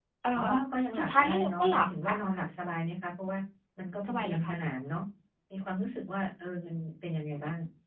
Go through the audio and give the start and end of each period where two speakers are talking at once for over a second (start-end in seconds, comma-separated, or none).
1.0-2.2